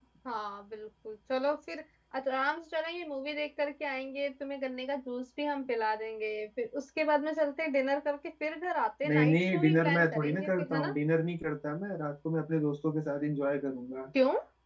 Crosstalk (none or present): present